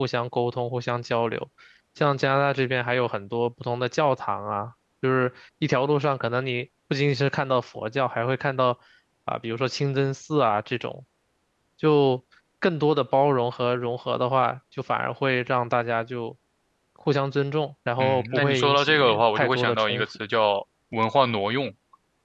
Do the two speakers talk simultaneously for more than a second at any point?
Yes, from 18.0 s

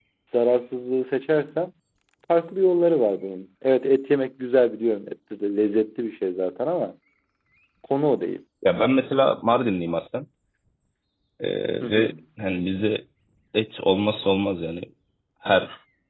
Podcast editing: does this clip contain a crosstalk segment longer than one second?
No

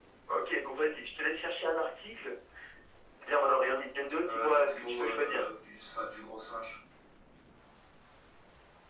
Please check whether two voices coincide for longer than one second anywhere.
Yes, from 4.2 s

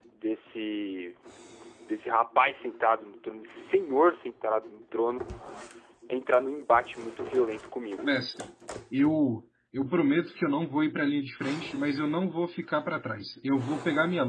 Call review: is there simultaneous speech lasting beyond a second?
No

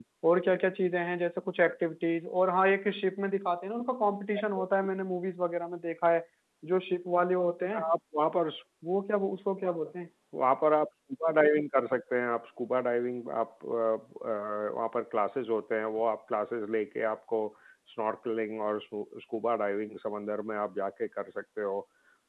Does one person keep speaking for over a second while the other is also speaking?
No

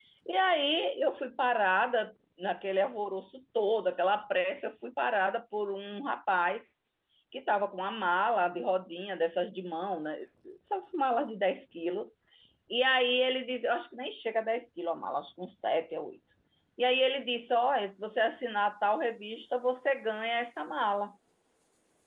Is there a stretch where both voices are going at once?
No

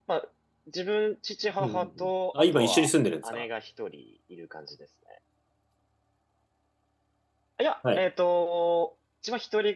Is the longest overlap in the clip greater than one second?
Yes, from 1.6 s

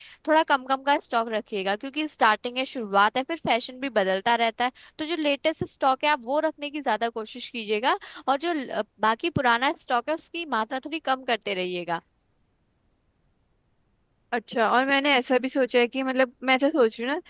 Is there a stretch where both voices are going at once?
No

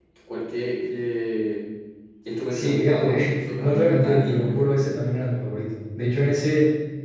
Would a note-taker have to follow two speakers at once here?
Yes, from 2.5 s

